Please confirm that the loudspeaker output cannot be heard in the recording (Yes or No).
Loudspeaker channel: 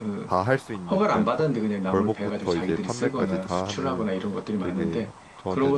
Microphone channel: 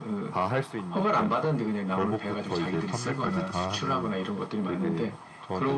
No